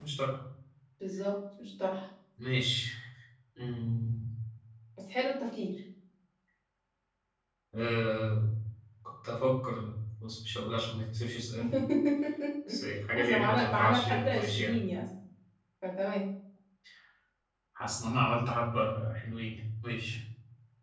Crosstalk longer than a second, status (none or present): present